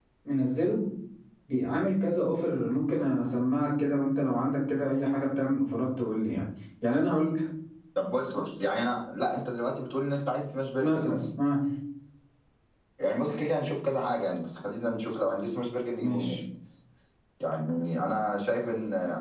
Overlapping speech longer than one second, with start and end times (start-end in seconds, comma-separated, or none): none